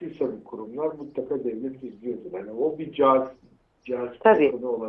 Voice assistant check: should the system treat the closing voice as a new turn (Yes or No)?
No